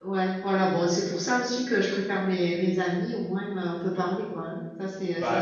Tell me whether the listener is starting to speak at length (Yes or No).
Yes